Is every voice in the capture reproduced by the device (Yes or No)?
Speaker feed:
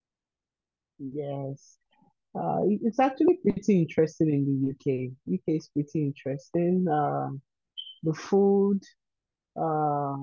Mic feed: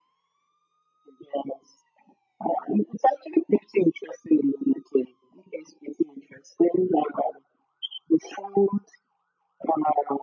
Yes